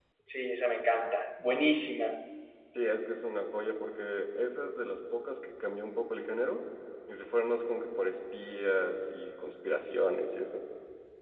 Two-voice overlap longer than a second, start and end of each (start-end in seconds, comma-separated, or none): none